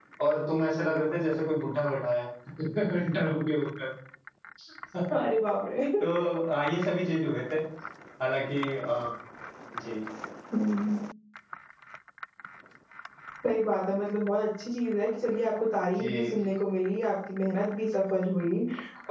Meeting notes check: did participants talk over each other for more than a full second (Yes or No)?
No